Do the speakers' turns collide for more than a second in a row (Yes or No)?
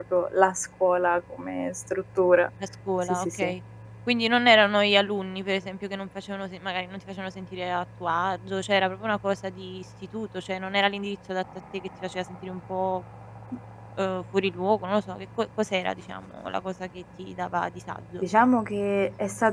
No